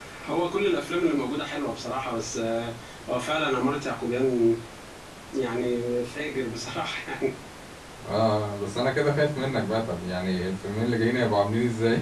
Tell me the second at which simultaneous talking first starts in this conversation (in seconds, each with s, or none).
none